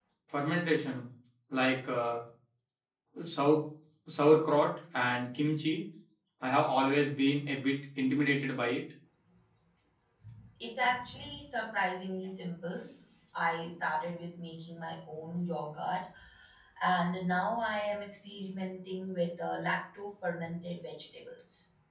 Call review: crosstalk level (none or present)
none